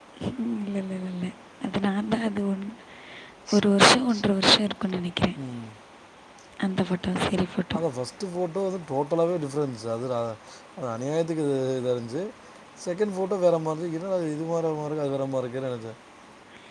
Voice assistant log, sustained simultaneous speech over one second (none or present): none